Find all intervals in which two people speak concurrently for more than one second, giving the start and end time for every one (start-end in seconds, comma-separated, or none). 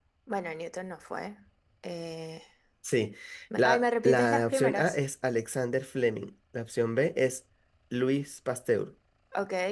3.6-5.0